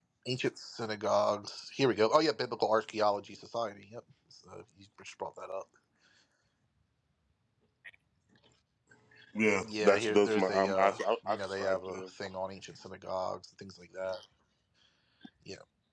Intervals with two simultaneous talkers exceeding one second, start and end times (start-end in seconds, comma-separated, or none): 9.6-12.0